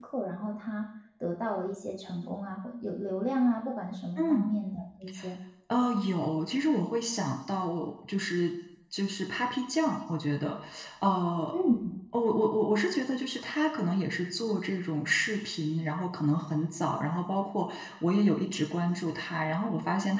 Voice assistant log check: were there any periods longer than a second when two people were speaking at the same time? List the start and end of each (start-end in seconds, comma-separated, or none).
none